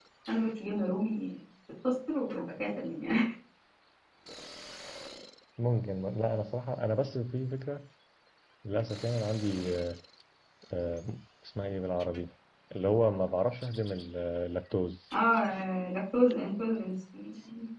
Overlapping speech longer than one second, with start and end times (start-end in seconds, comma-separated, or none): none